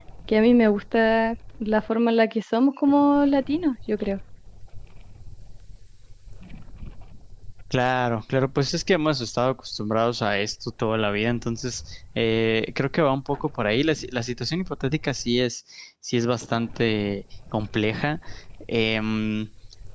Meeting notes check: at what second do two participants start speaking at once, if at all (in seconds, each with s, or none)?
none